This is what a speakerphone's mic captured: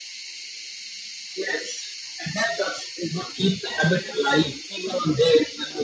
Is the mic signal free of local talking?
Yes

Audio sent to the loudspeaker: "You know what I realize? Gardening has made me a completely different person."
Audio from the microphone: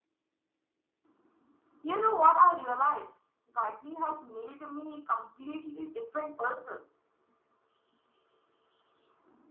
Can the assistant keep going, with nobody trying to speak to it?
Yes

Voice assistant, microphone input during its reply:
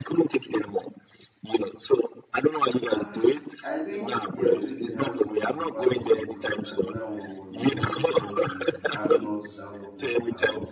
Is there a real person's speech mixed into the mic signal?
Yes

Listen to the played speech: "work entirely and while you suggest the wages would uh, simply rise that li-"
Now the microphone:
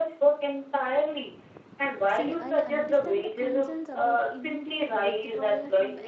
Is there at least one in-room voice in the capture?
Yes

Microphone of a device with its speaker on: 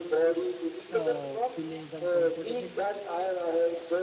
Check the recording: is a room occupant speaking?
Yes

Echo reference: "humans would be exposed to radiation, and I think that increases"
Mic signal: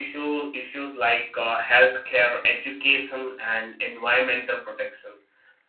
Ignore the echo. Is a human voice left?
Yes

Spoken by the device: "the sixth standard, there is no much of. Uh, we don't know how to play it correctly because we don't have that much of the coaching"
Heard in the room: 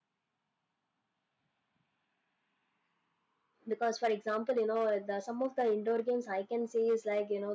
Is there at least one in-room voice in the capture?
Yes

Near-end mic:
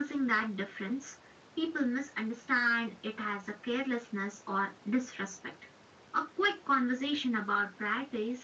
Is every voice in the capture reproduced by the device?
Yes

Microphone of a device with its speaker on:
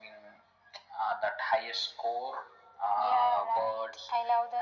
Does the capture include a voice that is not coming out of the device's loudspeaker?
No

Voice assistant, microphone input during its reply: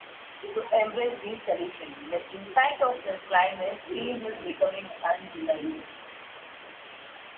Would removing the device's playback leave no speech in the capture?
Yes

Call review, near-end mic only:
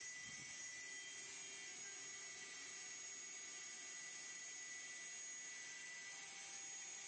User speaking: No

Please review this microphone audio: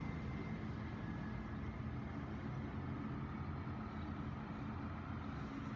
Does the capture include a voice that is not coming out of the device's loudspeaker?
No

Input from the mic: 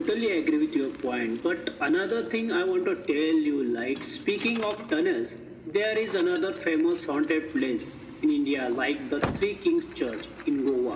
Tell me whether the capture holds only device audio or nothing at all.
Yes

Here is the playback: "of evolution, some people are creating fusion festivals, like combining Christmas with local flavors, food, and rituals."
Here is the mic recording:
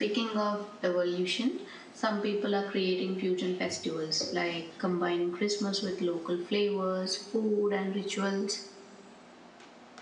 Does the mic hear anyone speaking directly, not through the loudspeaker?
No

